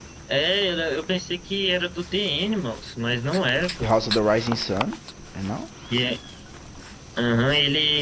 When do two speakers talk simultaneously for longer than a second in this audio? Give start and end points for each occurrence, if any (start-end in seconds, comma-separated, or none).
none